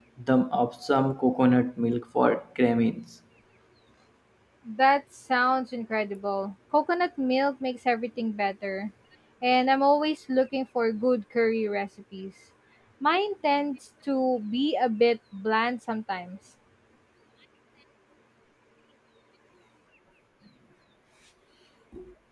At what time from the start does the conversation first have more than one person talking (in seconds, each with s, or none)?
none